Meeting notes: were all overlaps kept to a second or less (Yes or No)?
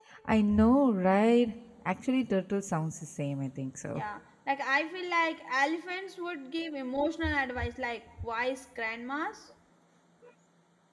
Yes